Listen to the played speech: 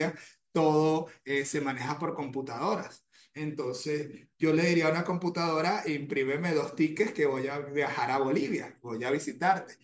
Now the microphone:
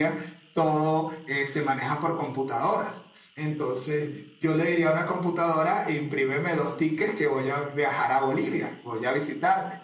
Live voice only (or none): none